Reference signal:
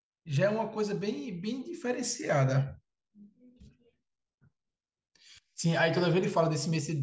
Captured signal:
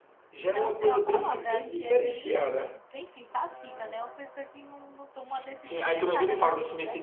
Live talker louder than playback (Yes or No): No